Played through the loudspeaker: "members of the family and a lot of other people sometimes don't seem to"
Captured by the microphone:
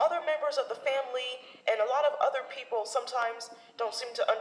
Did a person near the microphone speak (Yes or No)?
No